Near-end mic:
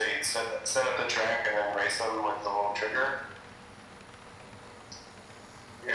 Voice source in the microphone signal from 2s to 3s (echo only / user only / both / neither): echo only